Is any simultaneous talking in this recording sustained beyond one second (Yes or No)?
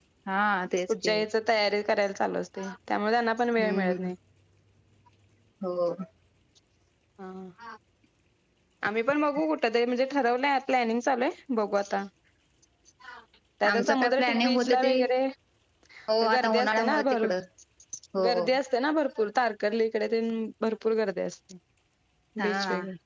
Yes